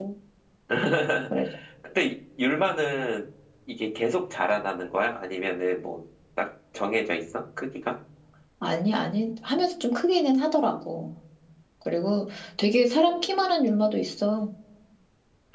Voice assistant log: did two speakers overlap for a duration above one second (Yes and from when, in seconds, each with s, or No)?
No